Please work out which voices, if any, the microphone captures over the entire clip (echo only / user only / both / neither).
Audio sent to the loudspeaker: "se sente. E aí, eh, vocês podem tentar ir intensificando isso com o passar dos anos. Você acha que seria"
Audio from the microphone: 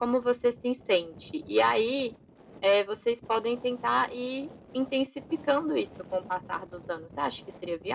echo only